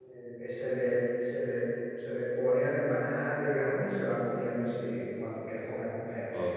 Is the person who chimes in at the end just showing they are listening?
No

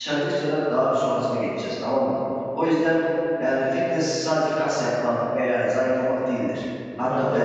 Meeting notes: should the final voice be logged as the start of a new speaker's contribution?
No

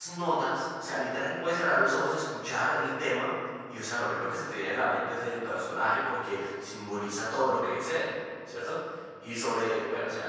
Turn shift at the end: No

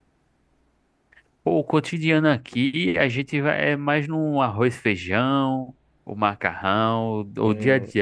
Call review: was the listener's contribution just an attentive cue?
Yes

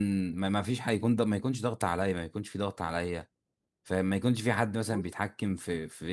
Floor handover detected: No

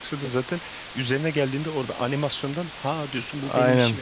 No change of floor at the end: No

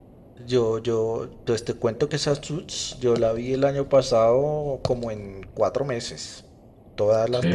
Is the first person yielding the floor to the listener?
No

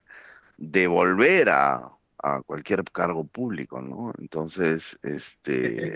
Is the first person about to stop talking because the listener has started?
Yes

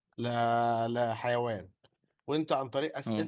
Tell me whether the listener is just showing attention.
Yes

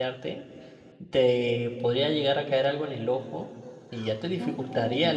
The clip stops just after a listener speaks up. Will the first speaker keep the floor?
Yes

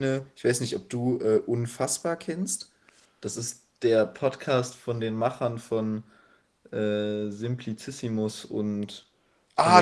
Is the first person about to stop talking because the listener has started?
Yes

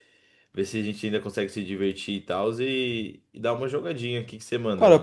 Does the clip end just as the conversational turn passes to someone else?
Yes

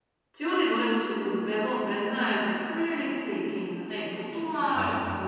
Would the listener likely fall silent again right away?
Yes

